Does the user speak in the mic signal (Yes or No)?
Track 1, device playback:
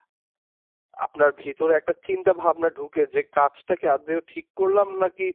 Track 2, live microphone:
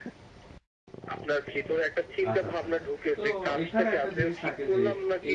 Yes